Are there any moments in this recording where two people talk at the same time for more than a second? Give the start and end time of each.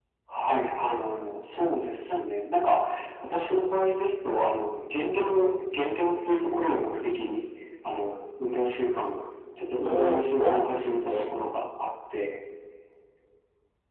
9.8-11.1

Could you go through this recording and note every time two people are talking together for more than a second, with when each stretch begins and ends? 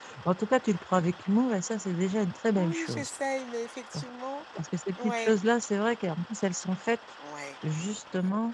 none

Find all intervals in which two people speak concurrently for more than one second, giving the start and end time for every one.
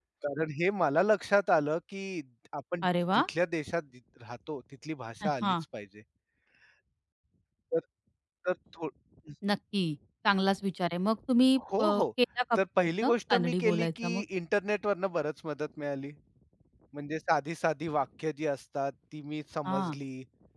12.6-14.2

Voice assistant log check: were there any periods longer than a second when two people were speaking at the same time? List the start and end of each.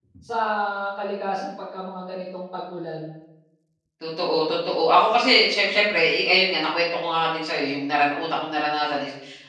none

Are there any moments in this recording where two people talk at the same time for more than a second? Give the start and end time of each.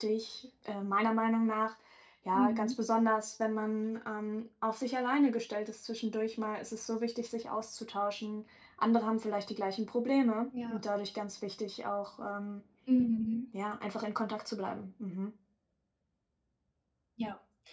none

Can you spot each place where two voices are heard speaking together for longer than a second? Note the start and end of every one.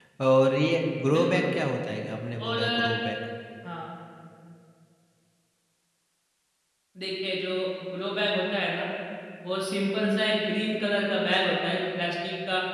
none

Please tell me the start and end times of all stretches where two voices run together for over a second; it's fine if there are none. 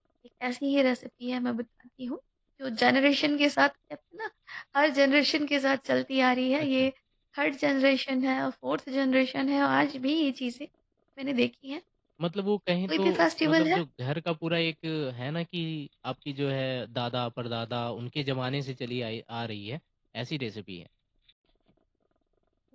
none

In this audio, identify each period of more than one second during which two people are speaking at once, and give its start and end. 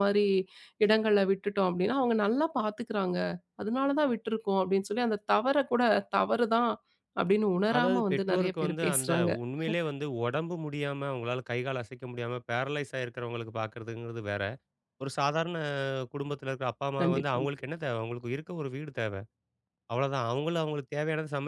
7.8-9.3

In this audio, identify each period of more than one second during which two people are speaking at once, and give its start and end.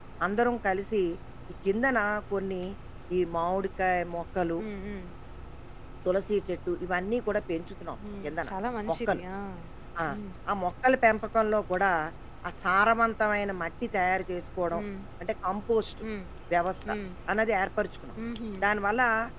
none

